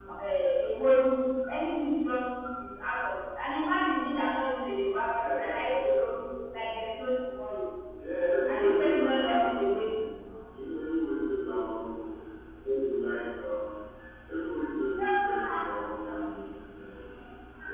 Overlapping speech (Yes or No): Yes